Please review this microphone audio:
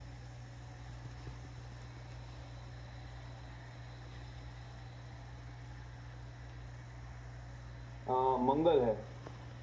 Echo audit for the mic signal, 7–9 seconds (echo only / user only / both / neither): user only